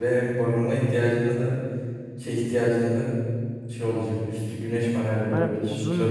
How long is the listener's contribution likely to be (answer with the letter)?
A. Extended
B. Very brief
A